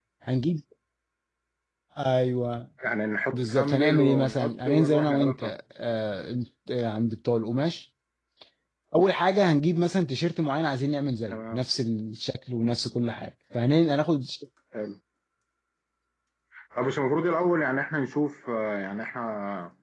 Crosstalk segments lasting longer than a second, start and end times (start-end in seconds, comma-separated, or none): 3.3-5.5